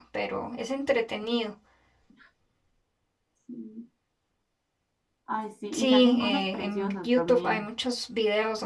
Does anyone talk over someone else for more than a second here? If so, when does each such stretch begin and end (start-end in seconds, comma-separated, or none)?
5.7-7.7